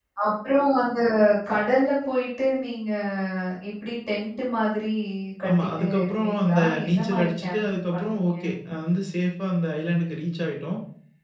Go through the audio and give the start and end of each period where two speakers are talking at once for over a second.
5.5-8.3

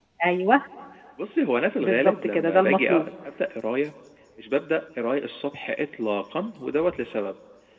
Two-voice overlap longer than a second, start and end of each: 1.8-3.1

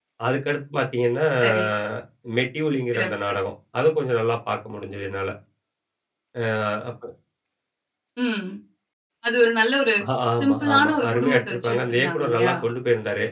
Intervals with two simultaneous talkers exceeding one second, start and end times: 10.4-12.5

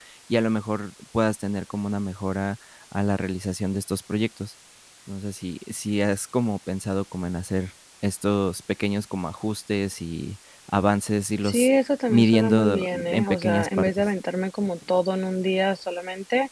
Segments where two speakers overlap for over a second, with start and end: 12.1-14.1

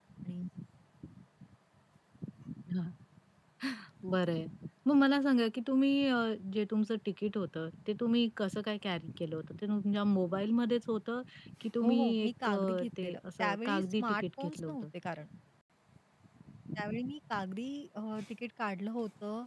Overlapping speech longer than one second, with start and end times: 11.8-14.9

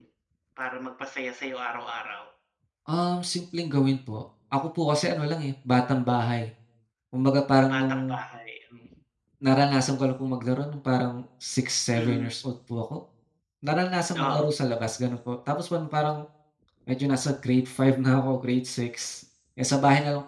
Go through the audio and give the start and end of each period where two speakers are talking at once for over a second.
none

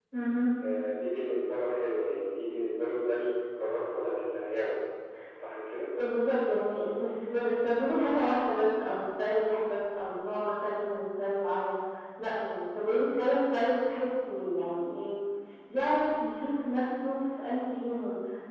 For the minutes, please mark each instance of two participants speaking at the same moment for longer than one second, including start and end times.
none

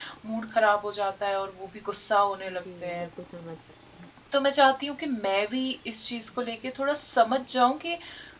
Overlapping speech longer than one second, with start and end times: none

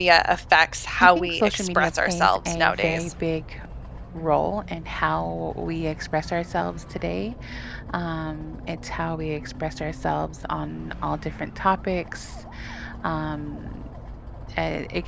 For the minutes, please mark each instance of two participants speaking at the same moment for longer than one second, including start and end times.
1.0-3.1

